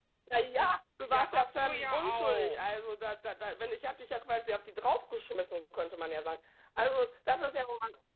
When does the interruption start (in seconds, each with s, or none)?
1.1 s